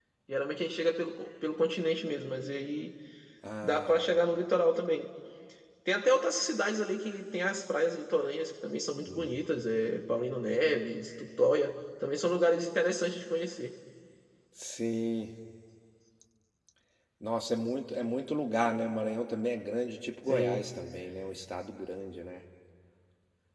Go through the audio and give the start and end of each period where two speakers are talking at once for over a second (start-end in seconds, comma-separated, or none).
none